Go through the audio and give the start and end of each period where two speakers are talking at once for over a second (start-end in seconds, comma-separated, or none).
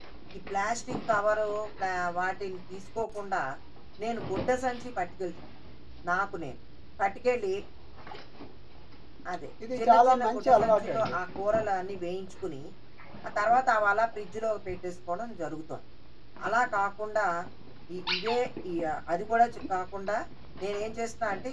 9.8-11.1